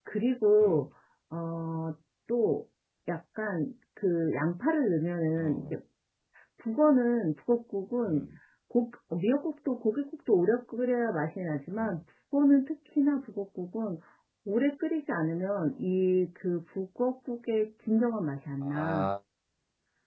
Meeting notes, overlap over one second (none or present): none